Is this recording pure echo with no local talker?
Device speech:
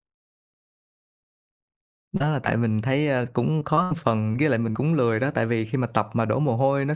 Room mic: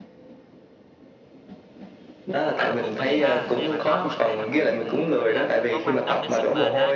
No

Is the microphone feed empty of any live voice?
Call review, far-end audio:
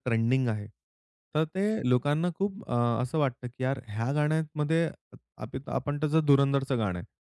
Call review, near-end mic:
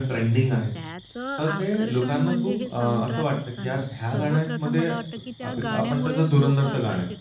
No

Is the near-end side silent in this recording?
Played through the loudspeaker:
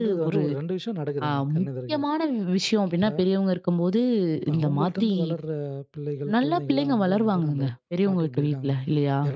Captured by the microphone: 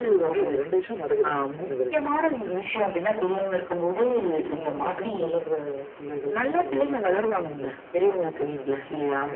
Yes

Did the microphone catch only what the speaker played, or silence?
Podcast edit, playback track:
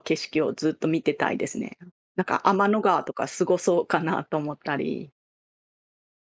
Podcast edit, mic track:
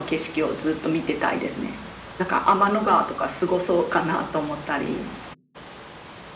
Yes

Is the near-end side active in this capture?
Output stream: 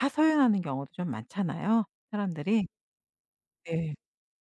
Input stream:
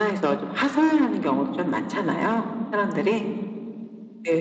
No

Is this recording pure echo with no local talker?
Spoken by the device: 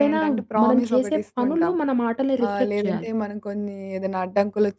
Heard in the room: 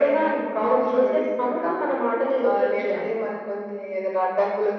Yes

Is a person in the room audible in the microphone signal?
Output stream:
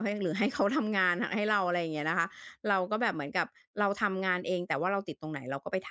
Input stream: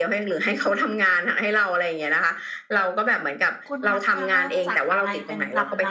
Yes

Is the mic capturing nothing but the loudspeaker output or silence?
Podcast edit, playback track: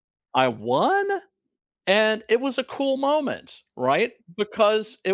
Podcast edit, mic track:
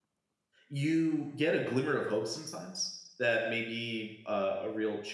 No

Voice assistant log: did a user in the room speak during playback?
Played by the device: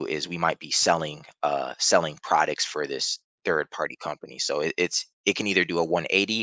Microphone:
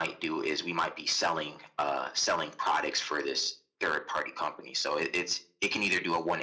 No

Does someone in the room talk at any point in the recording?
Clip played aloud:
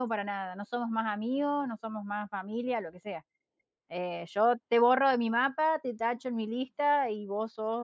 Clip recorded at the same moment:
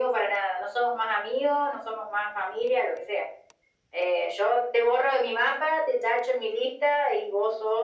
No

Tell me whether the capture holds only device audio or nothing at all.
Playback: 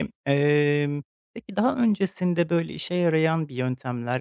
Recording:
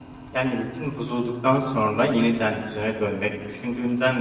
No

